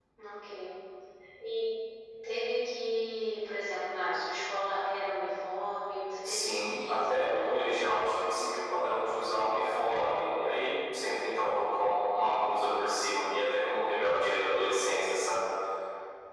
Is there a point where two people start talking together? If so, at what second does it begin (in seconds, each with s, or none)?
6.2 s